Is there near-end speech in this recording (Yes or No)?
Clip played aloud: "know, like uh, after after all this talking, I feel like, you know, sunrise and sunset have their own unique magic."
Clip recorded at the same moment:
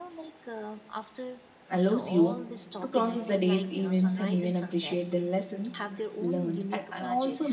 Yes